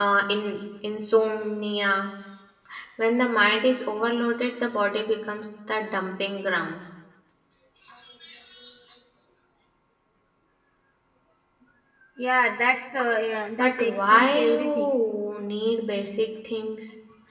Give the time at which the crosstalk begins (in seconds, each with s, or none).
13.6 s